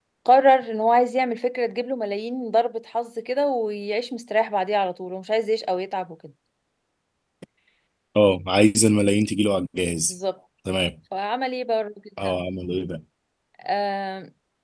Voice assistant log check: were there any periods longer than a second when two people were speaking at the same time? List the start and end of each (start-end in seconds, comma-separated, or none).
none